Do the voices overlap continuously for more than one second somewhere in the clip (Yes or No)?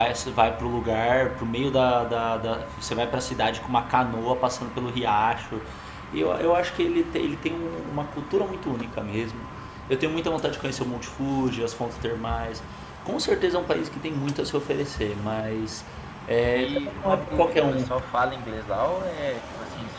Yes